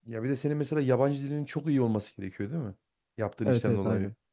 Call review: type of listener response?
taking over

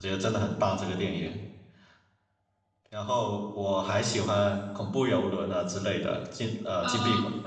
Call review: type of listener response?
listening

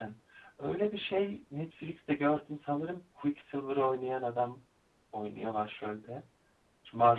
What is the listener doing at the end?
taking over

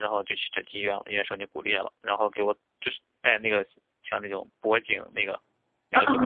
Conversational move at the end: listening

